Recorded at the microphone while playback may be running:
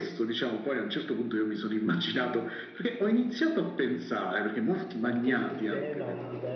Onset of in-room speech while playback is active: 4.8 s

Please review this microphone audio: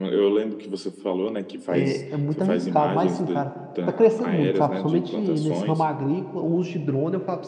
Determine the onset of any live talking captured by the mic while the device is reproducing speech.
1.7 s

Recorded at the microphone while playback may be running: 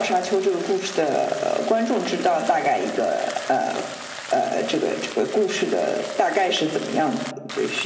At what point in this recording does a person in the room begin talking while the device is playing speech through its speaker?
none

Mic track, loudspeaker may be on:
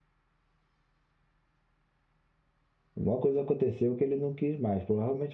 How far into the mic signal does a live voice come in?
2.9 s

